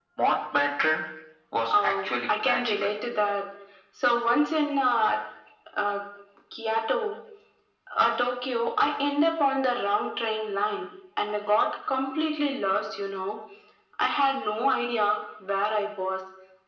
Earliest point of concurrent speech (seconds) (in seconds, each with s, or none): 1.7 s